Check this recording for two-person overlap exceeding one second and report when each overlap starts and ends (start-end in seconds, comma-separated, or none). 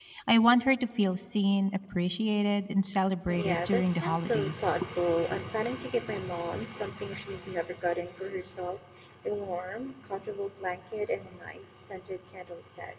3.3-4.7